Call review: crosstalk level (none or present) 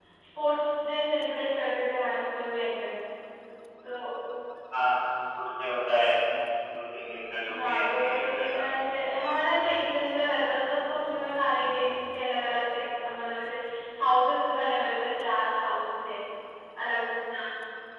present